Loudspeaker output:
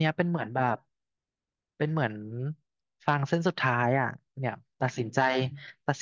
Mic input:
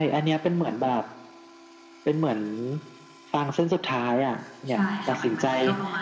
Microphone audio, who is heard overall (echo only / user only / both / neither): both